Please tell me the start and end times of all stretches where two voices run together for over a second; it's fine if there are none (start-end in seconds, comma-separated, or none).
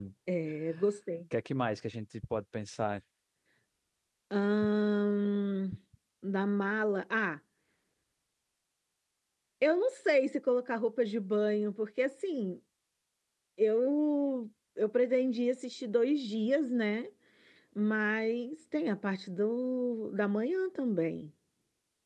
none